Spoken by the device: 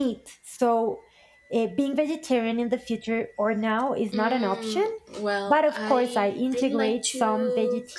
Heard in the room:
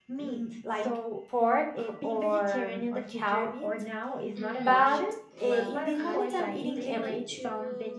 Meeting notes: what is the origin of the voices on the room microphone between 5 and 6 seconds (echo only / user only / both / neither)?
both